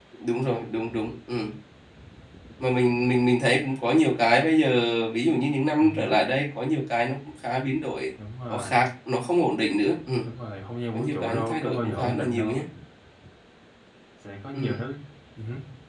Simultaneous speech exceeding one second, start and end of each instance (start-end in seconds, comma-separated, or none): 10.9-12.6